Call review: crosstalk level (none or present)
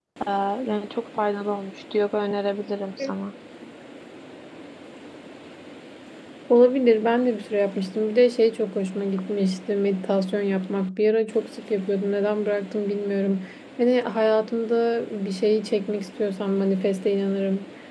none